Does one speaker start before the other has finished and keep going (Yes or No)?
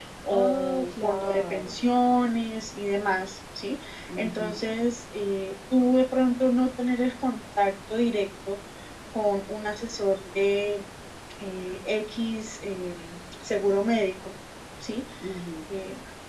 Yes